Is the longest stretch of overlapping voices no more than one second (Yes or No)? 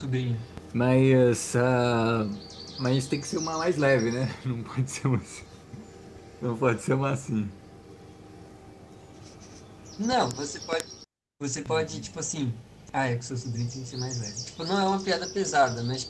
Yes